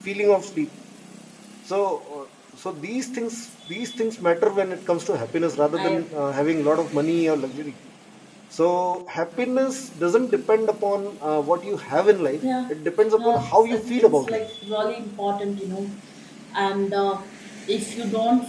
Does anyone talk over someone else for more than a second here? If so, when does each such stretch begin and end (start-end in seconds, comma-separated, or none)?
13.2-14.4